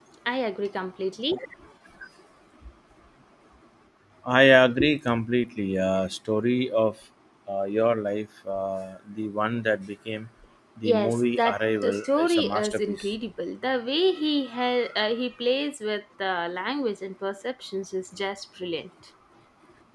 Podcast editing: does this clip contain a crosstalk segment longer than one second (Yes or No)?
Yes